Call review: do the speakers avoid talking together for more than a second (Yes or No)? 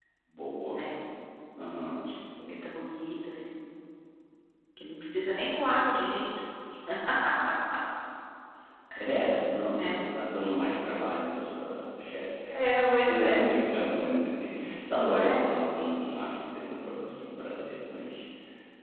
Yes